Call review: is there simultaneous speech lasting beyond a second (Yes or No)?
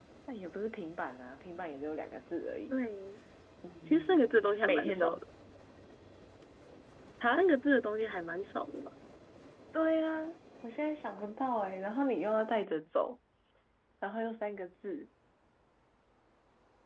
Yes